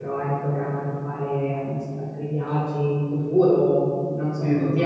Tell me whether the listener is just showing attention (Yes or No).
No